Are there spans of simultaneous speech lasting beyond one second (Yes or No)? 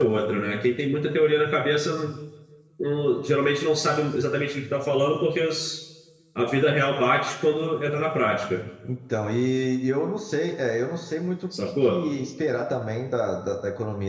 No